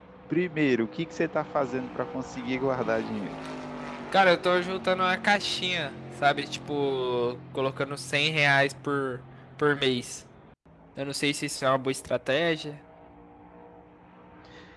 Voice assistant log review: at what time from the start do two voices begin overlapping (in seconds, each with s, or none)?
none